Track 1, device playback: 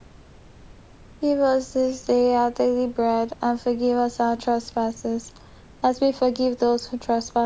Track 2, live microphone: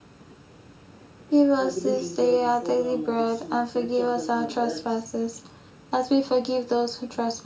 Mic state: both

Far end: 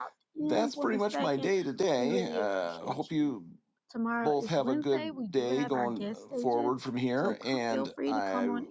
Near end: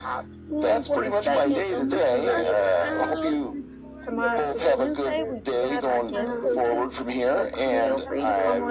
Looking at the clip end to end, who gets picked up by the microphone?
both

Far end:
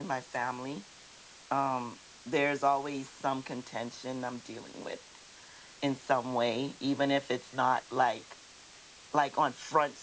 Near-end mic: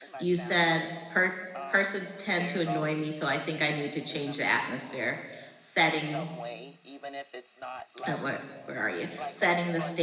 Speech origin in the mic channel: both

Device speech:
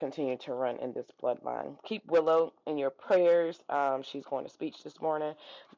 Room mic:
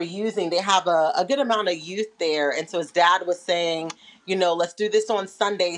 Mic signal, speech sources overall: user only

